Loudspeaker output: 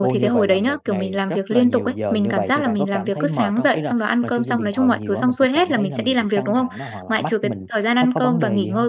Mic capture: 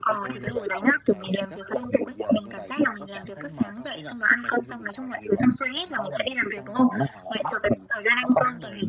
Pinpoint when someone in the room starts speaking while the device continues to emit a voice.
none

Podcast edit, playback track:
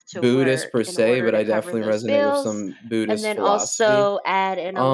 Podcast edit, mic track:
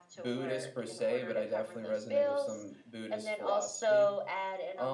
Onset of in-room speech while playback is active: none

